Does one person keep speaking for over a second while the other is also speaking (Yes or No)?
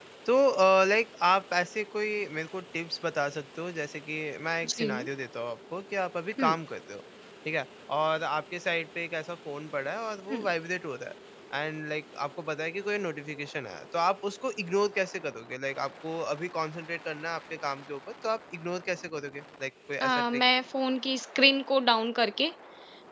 No